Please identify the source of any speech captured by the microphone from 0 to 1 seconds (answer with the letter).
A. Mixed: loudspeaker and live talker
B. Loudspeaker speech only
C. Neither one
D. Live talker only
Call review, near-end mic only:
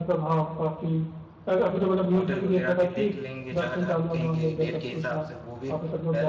B